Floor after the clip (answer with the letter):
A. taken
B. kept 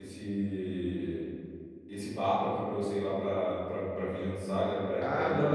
A